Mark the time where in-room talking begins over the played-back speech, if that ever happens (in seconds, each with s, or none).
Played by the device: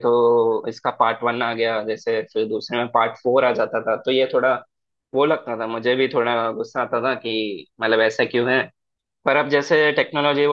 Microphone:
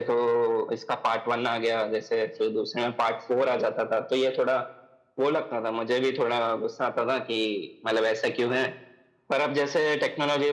none